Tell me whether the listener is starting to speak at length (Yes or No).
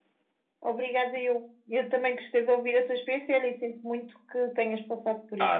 Yes